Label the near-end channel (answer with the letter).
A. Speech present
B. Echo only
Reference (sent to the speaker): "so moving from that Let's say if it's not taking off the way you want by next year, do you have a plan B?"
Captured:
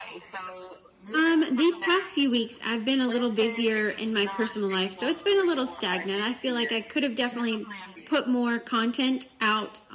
A